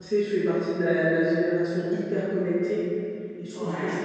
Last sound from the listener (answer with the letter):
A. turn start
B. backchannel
B